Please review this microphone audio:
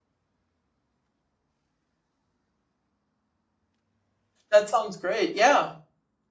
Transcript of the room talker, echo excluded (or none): That sounds great, yeah.